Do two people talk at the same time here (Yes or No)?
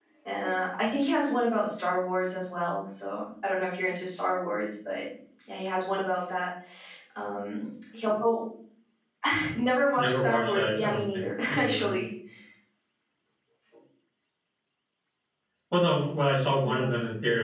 Yes